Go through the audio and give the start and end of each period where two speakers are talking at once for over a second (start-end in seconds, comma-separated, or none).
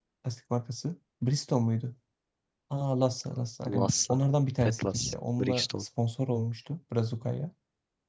4.6-5.8